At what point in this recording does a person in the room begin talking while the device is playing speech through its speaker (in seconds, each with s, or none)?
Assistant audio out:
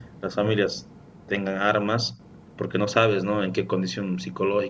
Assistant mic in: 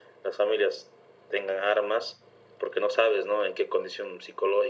none